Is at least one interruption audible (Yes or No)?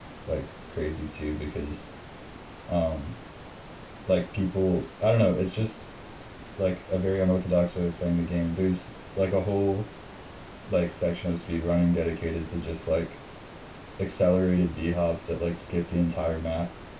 No